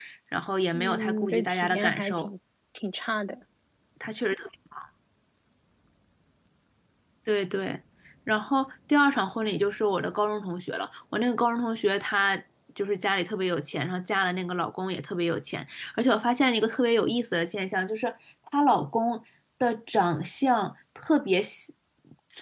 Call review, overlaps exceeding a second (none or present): present